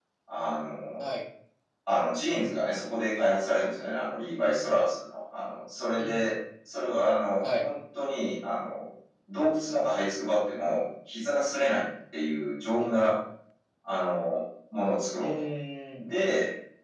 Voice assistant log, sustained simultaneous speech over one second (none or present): none